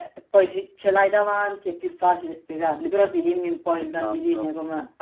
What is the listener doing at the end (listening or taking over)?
taking over